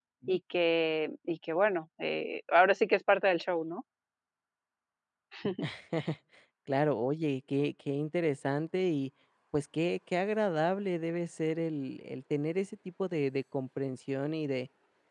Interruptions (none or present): none